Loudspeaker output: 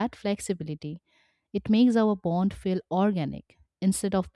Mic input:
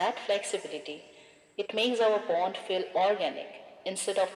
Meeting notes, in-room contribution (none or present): none